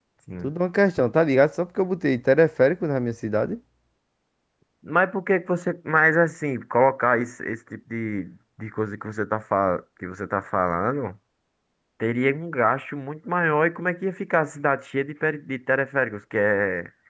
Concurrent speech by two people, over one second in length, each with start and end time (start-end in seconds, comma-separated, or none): none